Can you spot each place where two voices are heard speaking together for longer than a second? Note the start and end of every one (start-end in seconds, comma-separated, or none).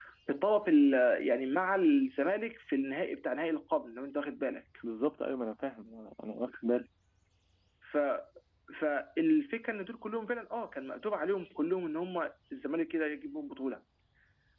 none